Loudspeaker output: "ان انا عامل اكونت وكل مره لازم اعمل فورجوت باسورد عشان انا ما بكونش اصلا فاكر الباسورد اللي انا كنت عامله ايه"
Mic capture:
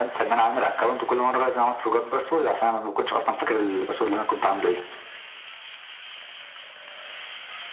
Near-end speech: none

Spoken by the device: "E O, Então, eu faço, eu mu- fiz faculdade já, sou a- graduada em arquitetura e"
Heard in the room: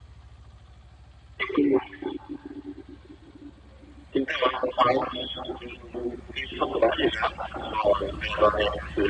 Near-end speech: none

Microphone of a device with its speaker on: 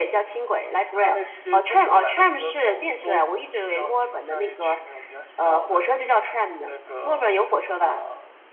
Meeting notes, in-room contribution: none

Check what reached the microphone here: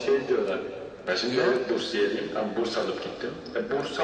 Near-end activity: present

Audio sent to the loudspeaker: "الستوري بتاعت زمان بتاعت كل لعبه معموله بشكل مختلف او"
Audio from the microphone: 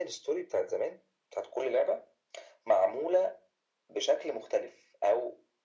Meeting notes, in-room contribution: none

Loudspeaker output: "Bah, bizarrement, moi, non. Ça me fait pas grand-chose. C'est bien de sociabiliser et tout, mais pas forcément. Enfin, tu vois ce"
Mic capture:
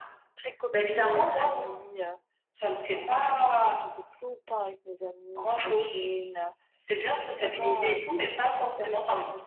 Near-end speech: present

